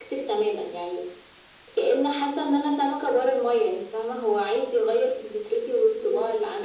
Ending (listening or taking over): taking over